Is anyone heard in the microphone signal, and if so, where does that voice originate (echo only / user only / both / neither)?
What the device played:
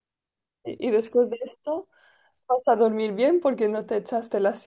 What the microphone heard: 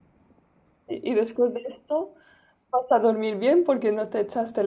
echo only